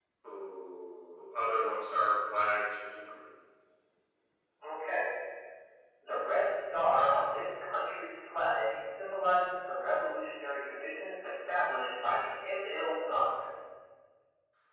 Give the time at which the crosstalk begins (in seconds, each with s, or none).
none